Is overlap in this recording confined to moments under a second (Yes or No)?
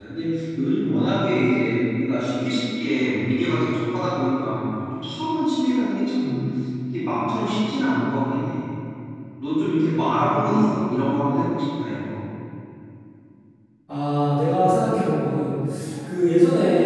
Yes